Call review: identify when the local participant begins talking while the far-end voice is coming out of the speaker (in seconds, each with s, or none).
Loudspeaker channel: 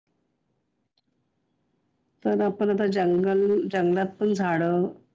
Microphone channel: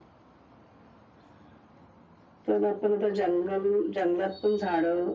none